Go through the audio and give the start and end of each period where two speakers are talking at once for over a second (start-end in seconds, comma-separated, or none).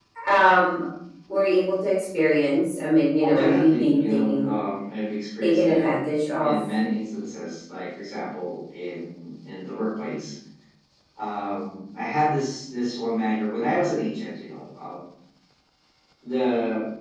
3.2-4.5